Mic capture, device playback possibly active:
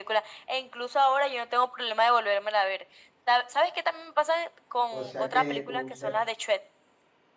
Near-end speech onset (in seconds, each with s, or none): 4.9 s